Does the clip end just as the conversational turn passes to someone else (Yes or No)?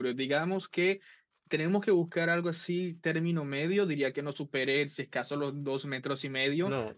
No